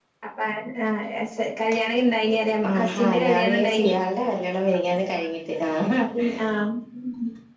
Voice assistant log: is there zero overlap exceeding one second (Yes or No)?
No